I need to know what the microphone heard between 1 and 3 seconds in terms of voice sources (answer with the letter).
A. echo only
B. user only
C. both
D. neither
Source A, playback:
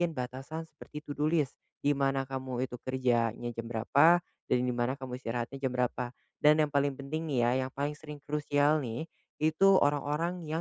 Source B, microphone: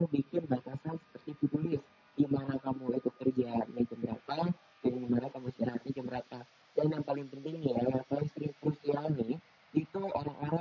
A